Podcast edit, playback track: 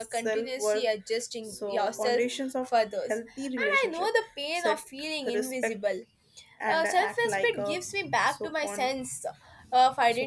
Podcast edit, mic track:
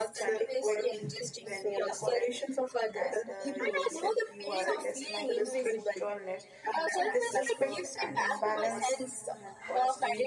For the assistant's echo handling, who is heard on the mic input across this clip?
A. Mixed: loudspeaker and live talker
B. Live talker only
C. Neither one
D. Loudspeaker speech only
A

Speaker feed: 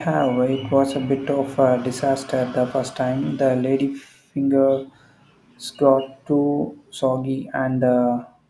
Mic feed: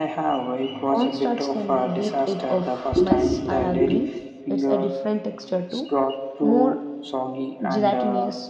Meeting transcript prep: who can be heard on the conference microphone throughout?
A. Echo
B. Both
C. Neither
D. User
B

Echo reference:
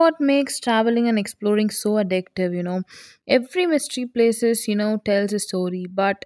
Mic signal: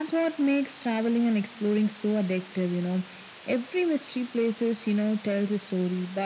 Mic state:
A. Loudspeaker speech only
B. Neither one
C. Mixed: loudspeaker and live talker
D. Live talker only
A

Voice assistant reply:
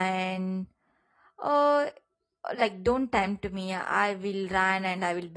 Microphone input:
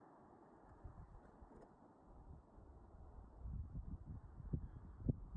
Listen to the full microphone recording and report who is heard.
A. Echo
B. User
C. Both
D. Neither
D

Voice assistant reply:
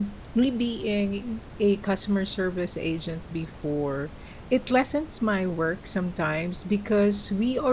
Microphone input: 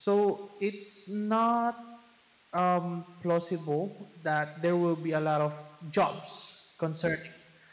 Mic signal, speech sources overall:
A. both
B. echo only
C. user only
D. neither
C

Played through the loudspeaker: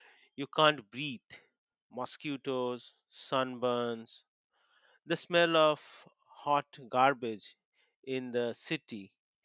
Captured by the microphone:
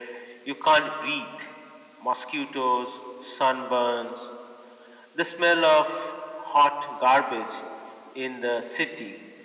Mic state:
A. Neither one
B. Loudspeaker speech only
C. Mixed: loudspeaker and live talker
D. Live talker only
B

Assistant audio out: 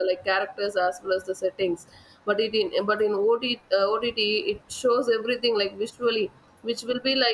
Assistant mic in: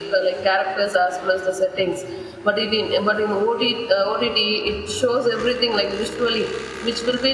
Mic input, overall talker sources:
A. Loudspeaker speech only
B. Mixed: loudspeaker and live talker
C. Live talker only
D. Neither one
A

